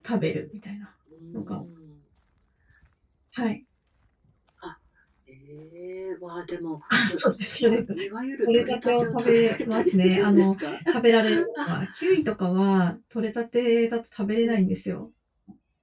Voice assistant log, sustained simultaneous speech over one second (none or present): present